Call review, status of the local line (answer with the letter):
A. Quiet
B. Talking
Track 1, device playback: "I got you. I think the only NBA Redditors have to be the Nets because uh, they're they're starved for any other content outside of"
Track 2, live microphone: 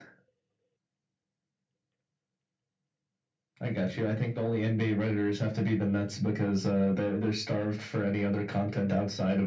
A